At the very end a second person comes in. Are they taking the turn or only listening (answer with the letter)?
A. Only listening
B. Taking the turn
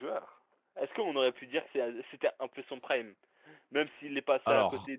A